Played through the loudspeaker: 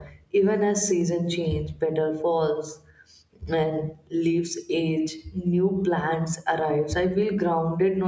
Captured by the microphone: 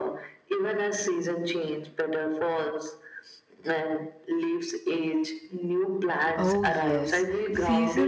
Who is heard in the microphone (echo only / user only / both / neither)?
both